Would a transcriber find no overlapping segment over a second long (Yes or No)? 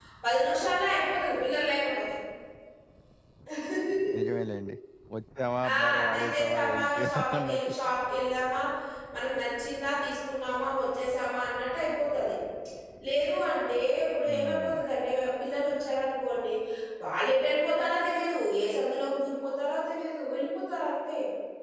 No